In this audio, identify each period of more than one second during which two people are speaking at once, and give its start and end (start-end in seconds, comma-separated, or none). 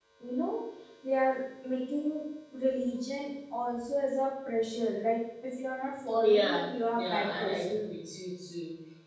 6.1-7.8